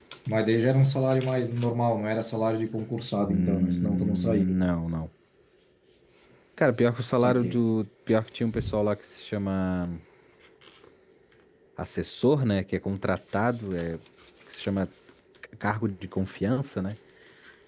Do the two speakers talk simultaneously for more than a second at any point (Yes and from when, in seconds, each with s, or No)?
Yes, from 3.2 s